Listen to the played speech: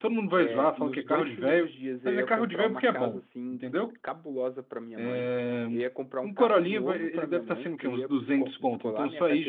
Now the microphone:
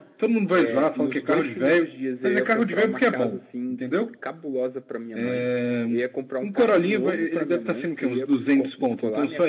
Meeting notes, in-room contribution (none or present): none